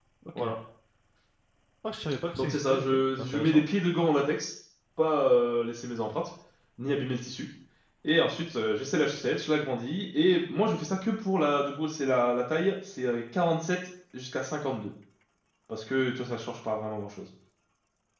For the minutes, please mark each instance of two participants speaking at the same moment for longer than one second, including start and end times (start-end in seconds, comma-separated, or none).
2.4-3.6